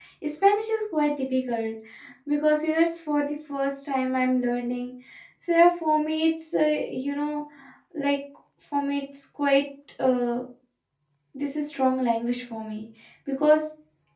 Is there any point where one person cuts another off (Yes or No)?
No